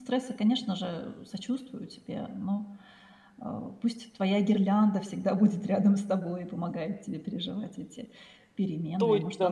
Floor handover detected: Yes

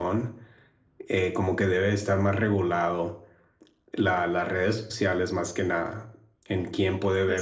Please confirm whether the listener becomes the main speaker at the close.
Yes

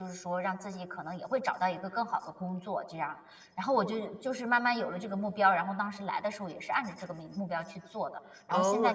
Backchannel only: No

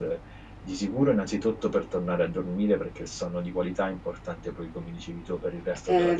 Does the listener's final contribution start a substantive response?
No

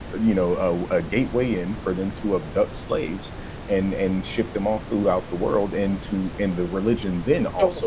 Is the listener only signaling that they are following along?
Yes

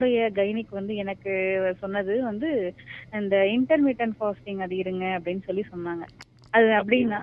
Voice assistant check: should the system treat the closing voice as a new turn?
No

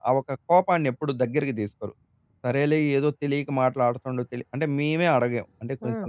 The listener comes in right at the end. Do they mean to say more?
No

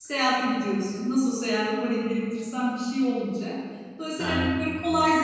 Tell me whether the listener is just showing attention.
Yes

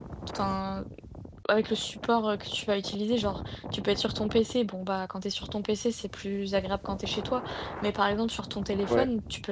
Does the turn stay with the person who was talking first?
Yes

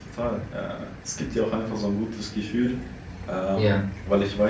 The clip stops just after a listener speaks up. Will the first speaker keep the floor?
Yes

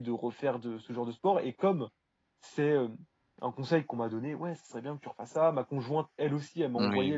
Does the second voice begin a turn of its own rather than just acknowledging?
No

